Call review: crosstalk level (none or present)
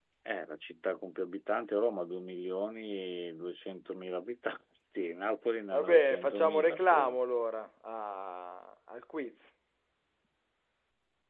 present